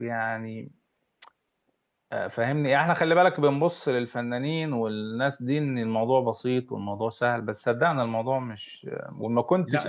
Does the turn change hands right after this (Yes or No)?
Yes